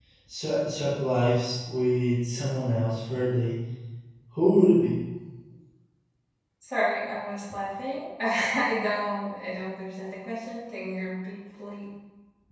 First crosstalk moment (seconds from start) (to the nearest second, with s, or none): none